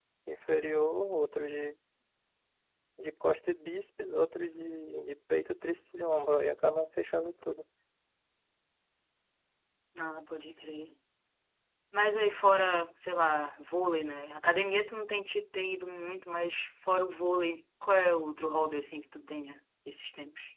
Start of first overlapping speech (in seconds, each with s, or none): none